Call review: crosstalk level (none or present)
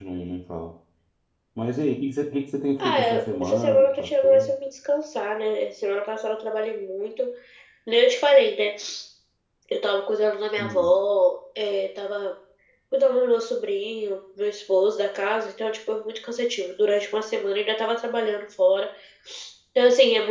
present